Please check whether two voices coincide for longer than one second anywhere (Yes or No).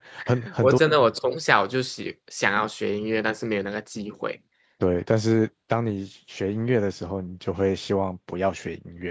No